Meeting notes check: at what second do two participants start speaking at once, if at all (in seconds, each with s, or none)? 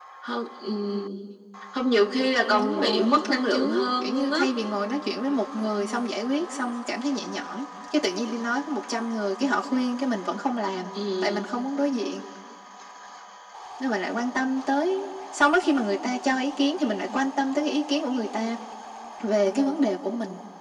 2.5 s